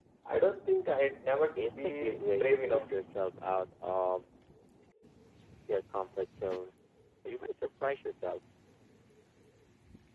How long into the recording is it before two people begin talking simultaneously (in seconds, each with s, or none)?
1.6 s